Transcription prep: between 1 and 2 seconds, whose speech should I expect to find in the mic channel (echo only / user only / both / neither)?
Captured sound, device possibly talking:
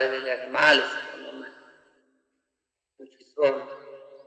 echo only